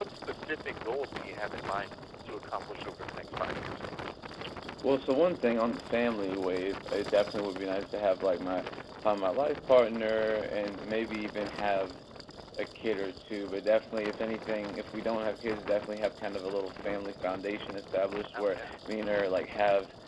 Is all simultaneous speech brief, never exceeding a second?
Yes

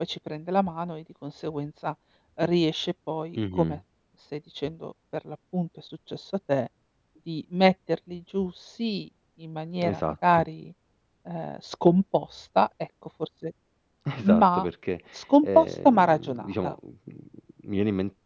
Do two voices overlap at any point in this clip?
Yes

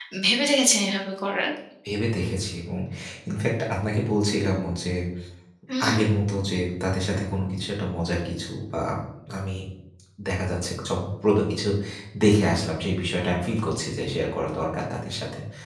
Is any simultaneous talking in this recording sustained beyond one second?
No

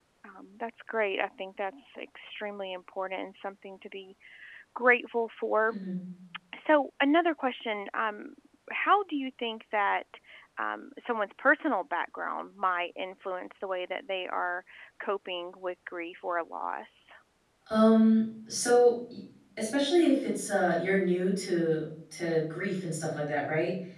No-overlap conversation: Yes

